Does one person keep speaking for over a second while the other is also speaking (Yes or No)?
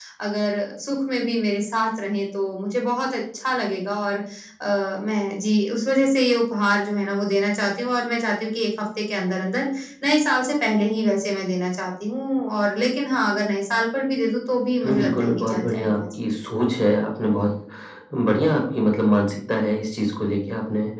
Yes